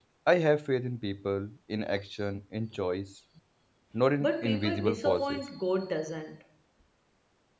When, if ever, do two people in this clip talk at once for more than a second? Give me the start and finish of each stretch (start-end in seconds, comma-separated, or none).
4.2-5.4